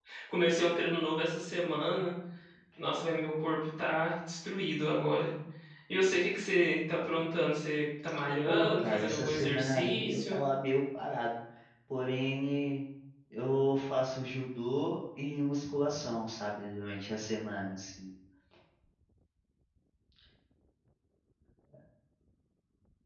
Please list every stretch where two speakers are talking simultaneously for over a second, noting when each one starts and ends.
8.5-10.4

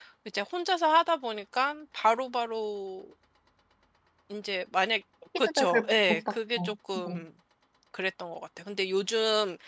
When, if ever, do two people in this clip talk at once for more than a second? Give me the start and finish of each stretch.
5.5-7.2

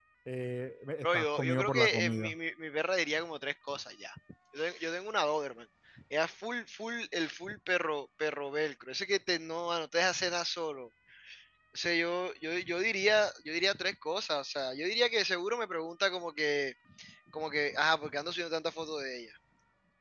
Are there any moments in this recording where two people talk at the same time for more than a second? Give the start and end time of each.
1.0-2.3

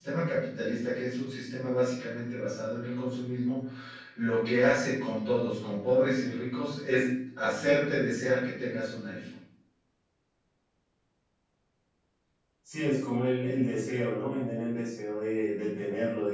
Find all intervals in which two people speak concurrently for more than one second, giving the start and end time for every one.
none

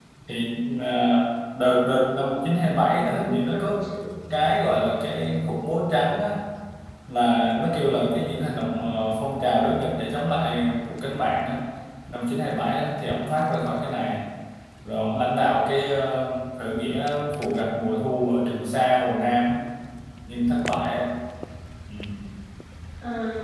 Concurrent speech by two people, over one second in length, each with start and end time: 2.4-3.8

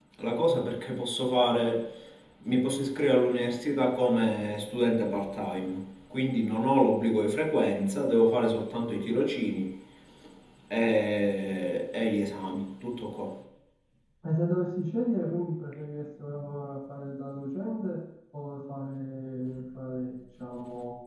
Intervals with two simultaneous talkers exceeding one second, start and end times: none

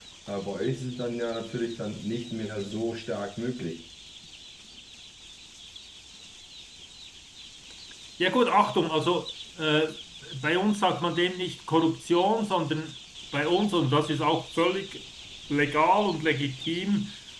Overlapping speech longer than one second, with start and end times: none

